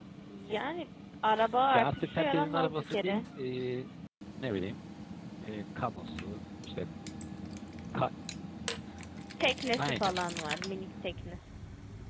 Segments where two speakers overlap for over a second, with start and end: 1.7-3.2

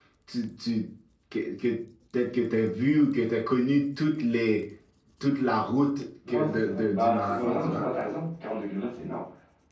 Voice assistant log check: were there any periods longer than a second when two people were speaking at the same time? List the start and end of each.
6.3-7.8

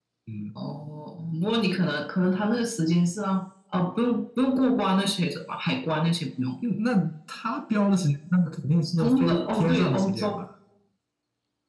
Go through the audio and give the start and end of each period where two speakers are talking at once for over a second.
9.0-10.4

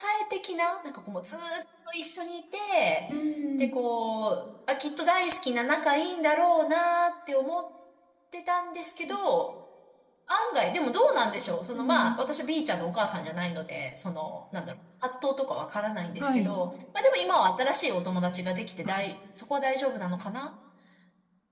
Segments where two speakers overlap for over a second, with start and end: none

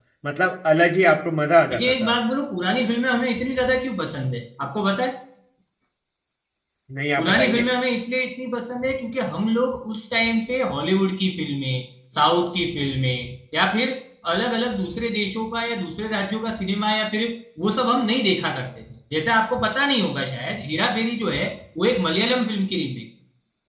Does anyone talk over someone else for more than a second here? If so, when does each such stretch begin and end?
none

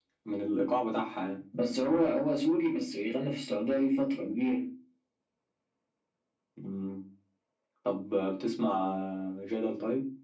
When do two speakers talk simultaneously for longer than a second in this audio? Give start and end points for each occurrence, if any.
none

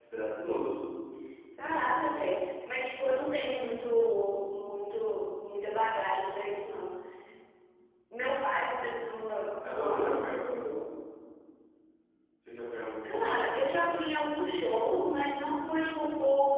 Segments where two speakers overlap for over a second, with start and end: none

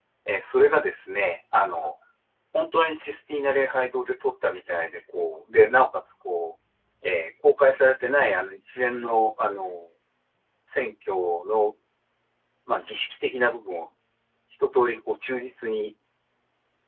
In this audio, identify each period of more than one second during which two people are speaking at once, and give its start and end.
none

